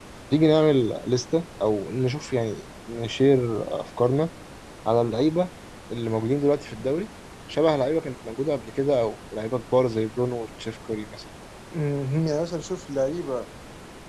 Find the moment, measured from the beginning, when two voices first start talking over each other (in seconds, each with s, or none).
none